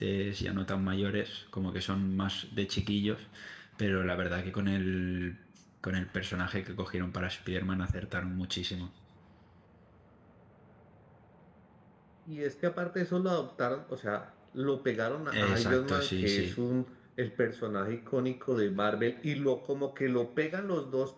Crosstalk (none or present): present